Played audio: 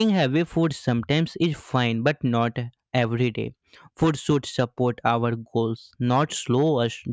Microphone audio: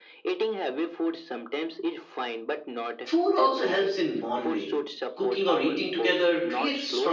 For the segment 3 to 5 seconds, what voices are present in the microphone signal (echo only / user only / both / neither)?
both